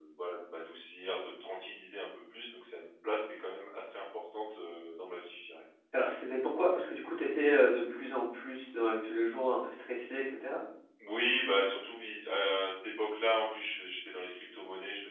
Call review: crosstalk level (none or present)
none